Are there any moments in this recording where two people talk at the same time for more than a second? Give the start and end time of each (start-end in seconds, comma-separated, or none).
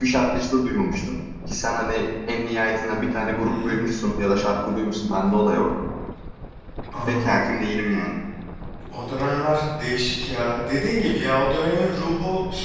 none